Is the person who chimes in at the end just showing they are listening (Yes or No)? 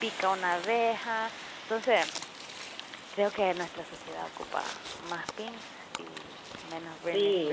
No